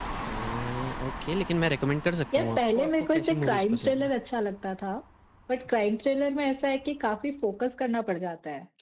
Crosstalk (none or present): present